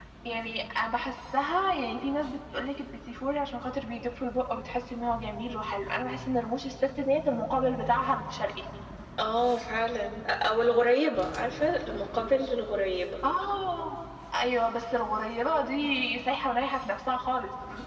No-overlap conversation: Yes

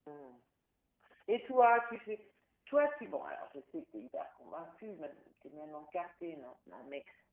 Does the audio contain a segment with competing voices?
No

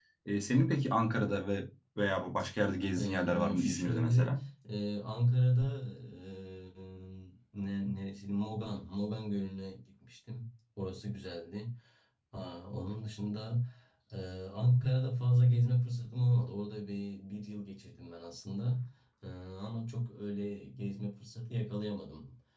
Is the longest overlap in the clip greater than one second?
Yes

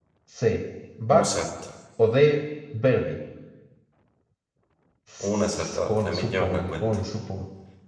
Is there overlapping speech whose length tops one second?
Yes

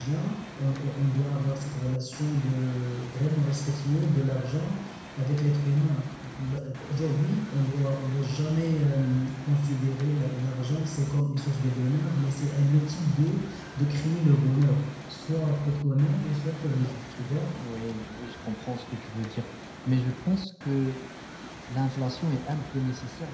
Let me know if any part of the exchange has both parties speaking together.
No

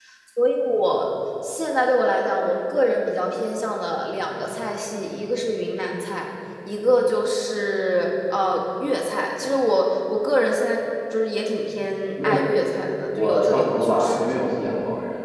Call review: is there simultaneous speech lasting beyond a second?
Yes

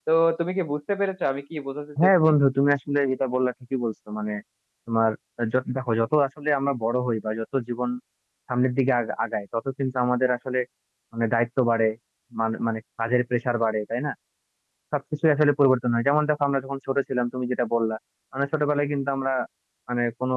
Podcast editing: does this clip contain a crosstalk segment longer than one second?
No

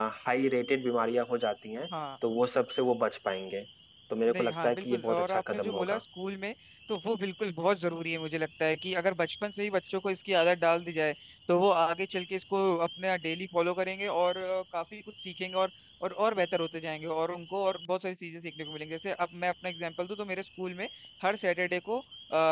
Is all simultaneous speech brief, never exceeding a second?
No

